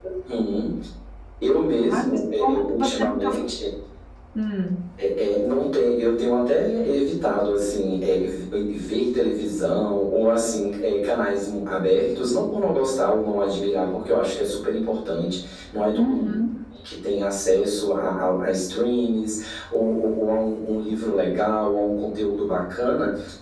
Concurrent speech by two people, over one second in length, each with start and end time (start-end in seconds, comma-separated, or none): 1.9-3.4